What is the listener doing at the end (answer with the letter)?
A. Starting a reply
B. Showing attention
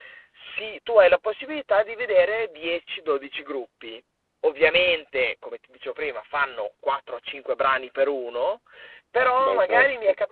B